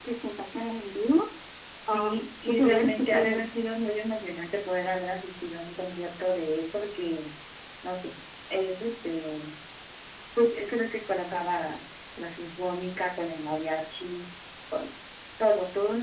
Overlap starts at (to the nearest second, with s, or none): 2 s